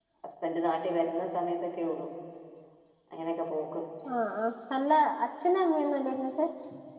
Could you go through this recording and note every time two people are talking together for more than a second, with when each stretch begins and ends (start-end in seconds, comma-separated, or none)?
none